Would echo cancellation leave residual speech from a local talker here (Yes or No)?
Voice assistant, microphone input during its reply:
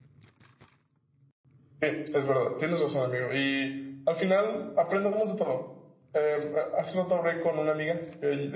Yes